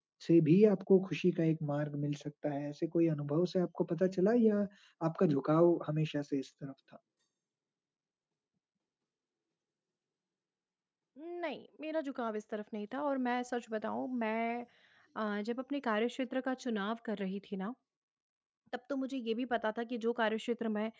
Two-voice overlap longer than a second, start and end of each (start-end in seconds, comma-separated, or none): none